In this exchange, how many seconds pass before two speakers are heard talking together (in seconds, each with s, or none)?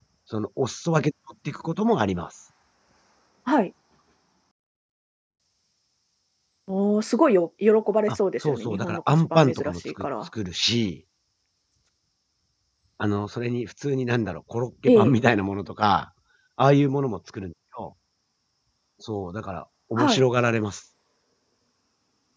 8.1 s